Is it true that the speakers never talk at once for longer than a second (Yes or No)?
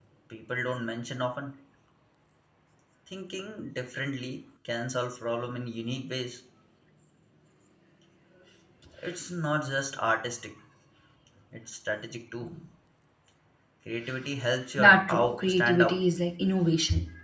No